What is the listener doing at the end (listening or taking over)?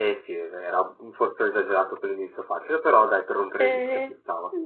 taking over